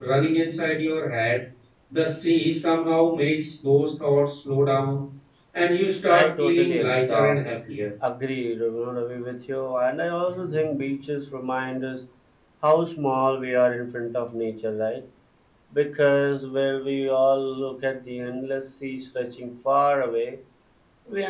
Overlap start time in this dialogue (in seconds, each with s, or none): 6.1 s